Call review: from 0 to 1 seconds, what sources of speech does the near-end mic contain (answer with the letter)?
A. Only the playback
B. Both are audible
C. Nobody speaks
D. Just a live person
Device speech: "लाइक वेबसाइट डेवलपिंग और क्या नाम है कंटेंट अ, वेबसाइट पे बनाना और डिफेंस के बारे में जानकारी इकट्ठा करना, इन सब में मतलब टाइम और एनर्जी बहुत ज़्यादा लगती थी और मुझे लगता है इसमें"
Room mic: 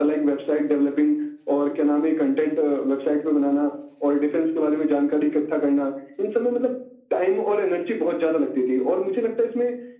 A